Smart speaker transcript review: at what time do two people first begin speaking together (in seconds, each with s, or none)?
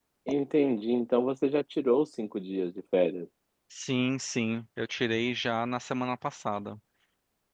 none